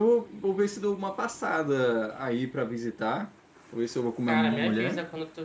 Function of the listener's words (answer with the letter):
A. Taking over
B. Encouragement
A